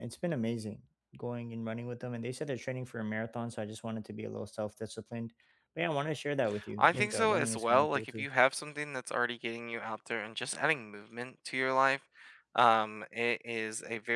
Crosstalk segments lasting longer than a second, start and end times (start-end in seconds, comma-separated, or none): 6.8-8.3